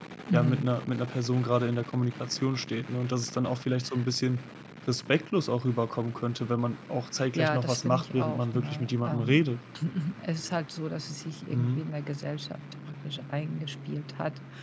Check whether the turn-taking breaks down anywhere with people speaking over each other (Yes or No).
Yes